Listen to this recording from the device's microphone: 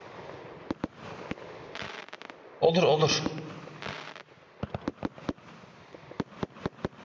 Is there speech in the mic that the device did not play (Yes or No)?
Yes